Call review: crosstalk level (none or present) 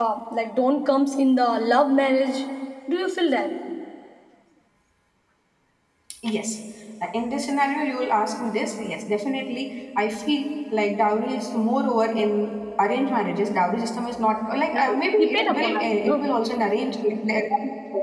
present